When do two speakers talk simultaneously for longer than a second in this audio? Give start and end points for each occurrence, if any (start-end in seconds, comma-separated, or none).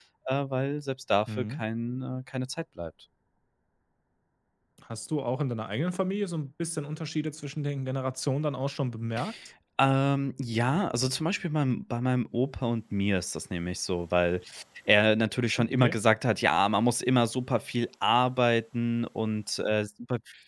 none